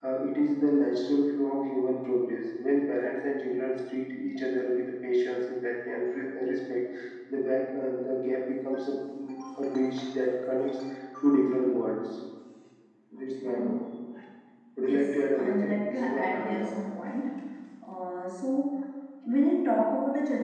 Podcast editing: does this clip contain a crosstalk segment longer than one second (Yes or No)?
Yes